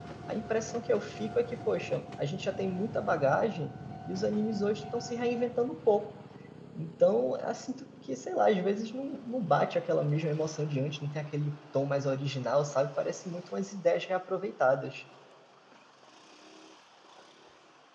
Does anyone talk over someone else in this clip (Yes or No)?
No